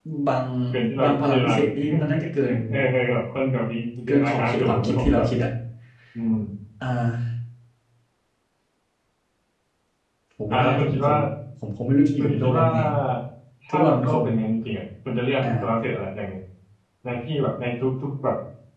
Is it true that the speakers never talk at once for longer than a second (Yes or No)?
No